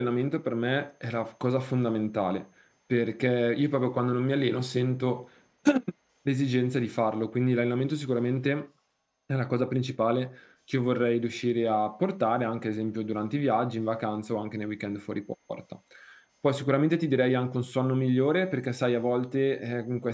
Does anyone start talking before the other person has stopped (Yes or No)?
No